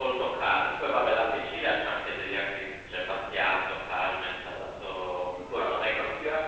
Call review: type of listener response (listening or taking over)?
taking over